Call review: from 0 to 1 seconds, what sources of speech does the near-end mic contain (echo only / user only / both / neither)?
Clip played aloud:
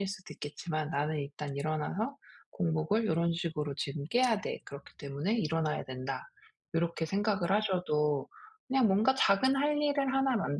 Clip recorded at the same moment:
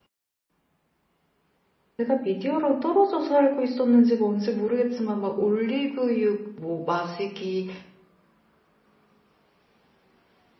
neither